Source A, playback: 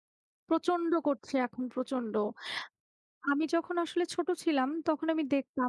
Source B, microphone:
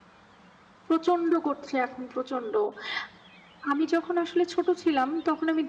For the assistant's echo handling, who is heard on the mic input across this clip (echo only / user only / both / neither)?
echo only